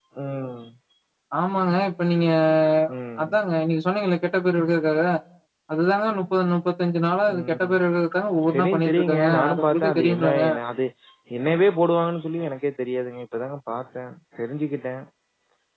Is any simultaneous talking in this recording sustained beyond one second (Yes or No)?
Yes